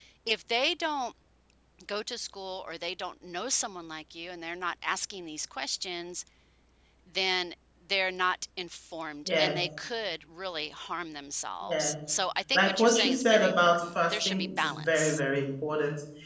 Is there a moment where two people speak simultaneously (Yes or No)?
Yes